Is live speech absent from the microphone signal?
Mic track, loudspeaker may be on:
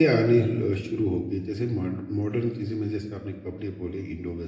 No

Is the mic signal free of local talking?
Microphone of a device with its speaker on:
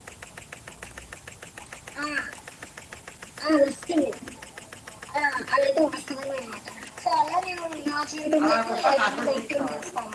No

